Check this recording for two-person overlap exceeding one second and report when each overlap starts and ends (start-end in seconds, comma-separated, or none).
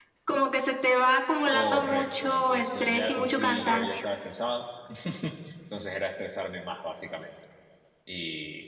1.5-4.0